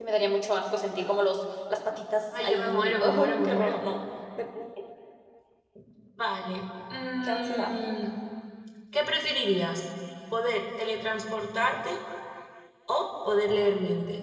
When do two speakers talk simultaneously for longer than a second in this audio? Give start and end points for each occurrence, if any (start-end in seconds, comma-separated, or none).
2.3-3.8